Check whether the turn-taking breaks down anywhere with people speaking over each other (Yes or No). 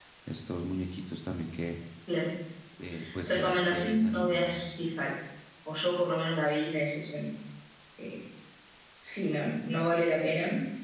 Yes